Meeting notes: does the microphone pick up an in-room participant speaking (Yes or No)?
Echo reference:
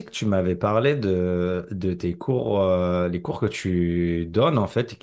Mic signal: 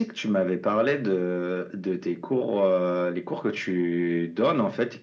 No